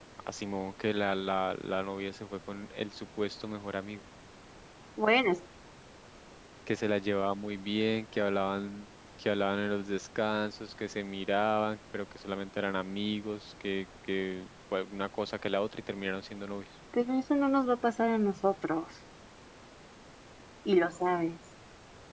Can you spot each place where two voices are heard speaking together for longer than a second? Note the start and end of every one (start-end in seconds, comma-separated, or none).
none